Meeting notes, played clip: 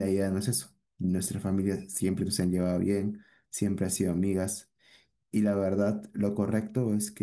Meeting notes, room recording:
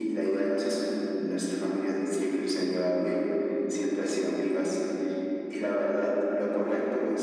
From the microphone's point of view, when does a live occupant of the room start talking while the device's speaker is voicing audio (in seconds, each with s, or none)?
none